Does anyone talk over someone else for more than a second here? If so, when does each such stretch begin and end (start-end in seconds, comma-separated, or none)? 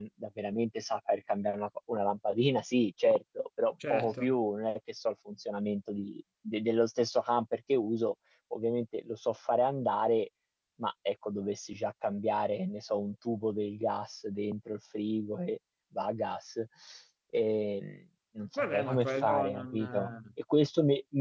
18.6-20.1